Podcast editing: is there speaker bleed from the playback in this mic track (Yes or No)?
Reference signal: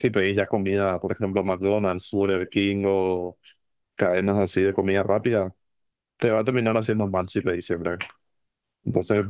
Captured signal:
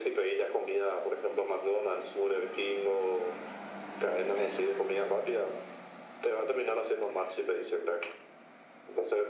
Yes